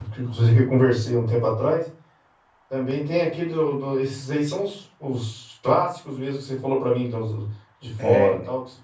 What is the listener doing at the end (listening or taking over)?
listening